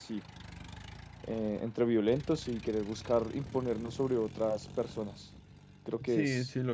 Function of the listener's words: taking over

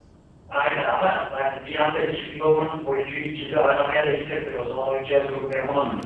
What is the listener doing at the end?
taking over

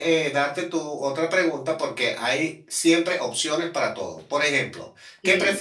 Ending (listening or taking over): listening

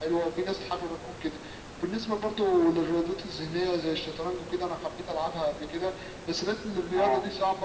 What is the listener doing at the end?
listening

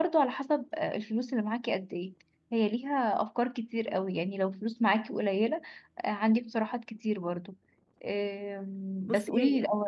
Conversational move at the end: listening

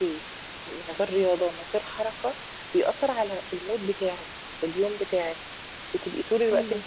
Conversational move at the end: listening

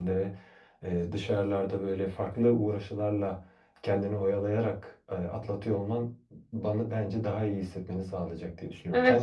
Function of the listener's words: taking over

